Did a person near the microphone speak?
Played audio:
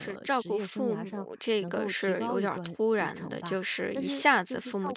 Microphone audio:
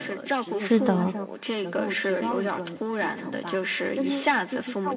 Yes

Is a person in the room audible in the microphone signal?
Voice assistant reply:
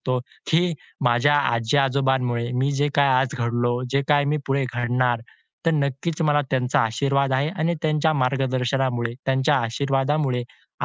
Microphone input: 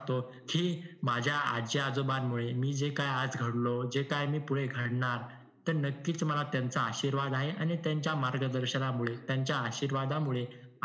No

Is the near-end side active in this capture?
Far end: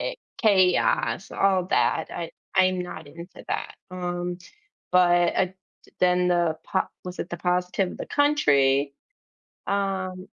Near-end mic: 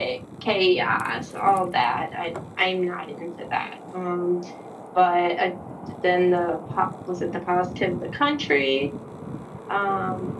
No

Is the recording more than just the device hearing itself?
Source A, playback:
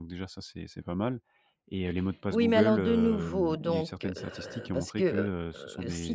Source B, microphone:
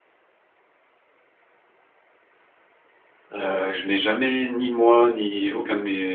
Yes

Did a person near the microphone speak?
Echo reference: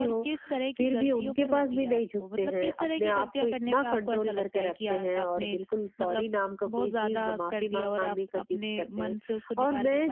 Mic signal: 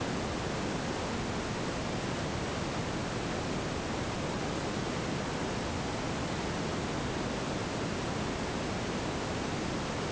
No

